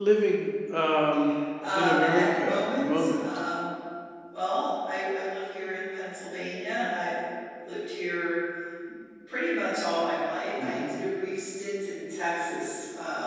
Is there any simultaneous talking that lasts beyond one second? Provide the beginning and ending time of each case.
1.7-3.2

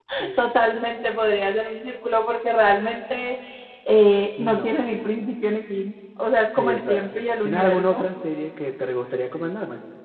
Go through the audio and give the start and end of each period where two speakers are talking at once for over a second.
6.5-8.1

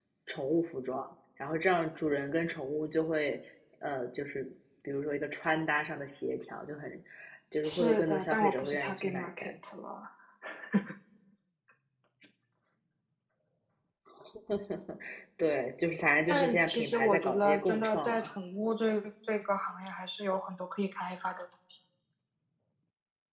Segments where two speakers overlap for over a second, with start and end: 7.6-9.5, 16.3-18.4

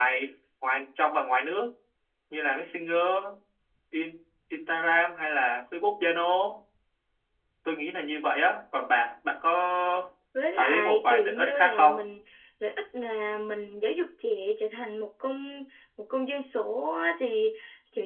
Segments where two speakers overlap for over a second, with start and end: 10.6-11.9

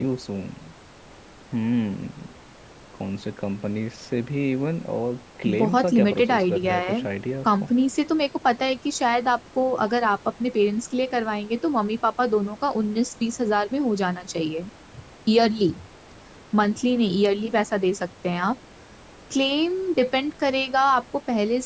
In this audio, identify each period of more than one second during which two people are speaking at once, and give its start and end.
5.5-7.0

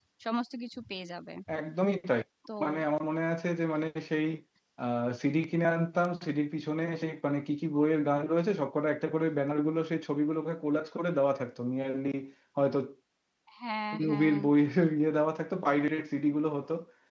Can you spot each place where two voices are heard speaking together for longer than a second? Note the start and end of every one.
none

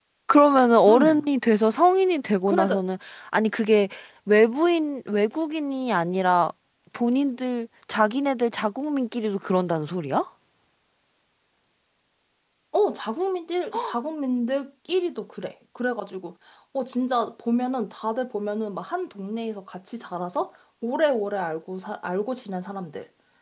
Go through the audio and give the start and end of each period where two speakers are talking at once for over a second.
none

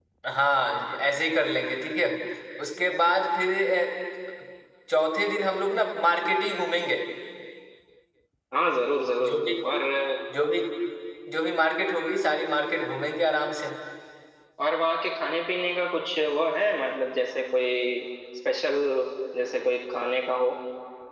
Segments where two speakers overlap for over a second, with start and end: none

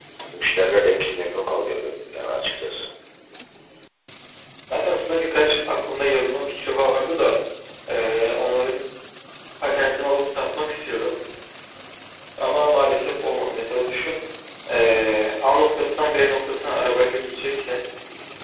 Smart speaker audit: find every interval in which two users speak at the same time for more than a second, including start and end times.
none

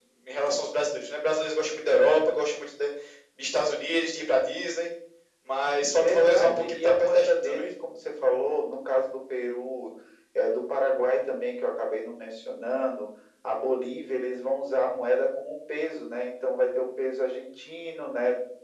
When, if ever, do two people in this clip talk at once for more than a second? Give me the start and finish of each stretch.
5.9-7.7

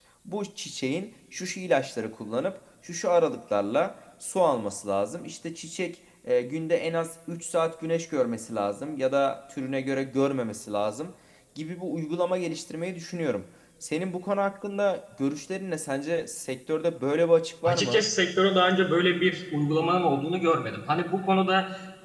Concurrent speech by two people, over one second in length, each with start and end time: none

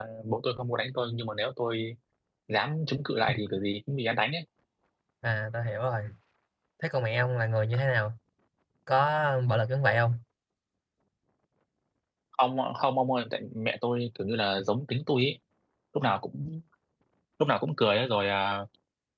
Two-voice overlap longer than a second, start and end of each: none

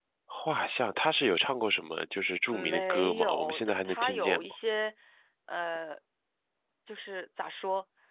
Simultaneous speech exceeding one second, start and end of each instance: 2.5-4.5

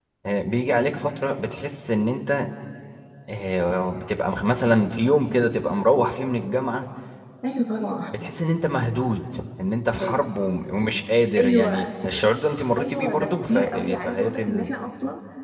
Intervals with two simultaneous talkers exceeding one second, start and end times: 12.8-14.7

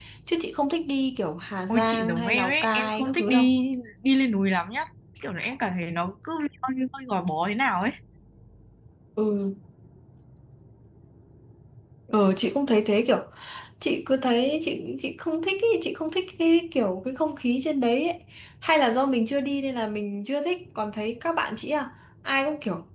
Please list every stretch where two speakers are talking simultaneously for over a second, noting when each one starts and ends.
1.7-3.5

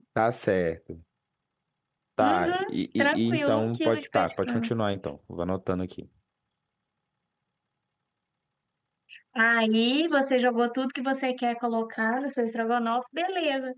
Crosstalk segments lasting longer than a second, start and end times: 2.2-4.7

